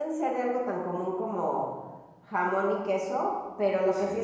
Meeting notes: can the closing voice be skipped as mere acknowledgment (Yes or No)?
Yes